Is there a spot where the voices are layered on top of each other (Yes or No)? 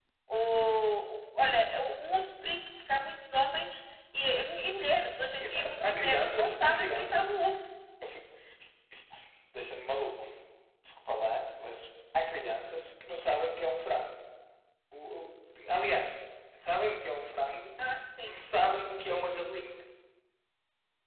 Yes